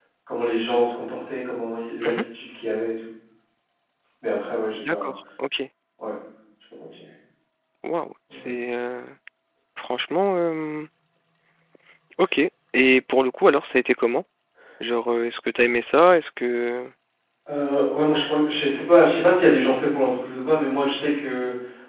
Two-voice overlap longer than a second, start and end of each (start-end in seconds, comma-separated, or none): none